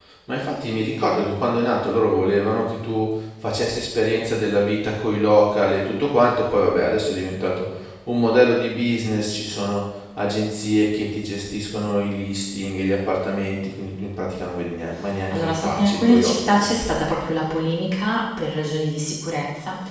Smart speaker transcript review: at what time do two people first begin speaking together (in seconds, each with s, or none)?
15.3 s